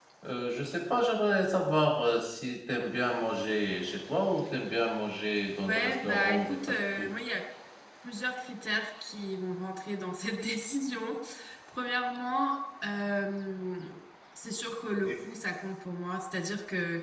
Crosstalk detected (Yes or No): Yes